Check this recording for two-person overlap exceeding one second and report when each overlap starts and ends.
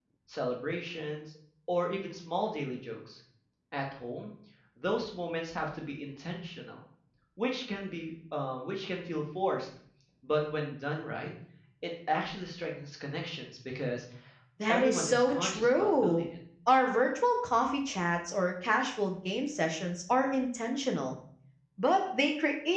14.7-16.2

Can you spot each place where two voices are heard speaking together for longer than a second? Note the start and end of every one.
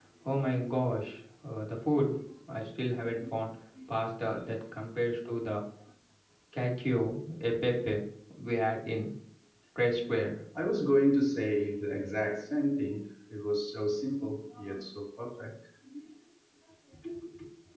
none

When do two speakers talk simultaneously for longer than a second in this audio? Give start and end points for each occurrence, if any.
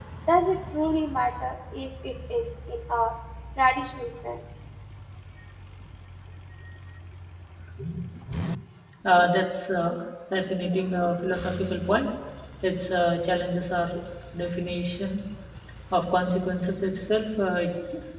none

